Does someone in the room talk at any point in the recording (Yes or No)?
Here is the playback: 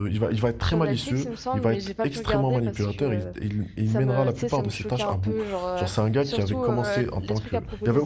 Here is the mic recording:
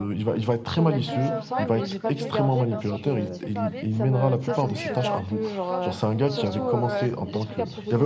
Yes